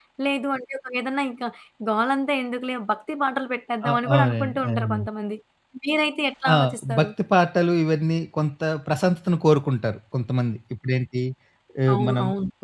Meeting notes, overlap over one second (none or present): present